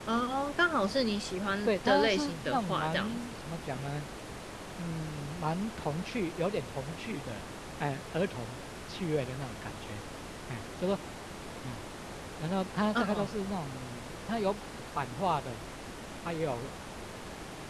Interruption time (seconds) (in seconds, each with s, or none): 1.6 s